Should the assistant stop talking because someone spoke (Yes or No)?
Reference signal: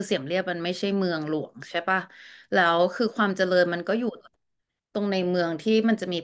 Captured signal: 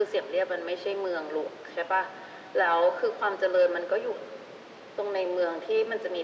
No